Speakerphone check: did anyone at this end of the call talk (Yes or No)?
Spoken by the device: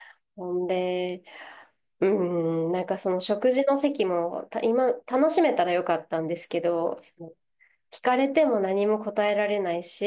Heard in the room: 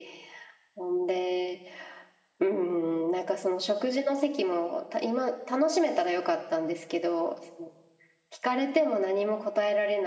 No